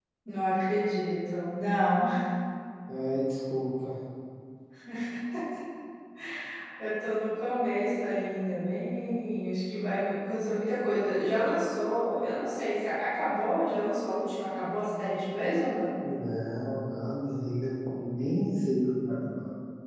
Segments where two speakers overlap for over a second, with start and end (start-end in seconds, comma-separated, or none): none